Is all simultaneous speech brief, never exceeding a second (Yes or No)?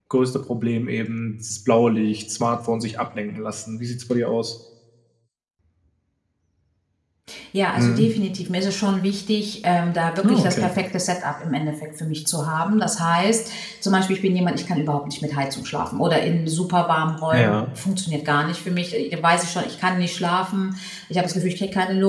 Yes